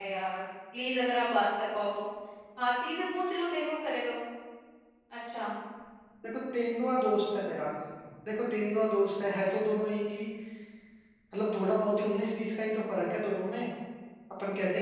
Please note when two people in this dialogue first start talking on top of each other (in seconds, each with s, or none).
none